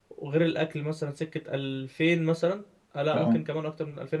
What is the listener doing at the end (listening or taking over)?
listening